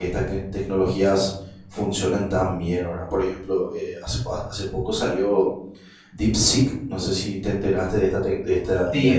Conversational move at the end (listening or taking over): taking over